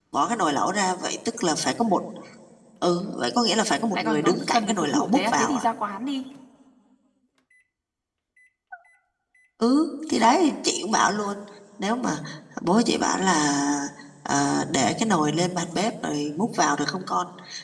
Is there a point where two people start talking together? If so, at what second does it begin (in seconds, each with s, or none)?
3.9 s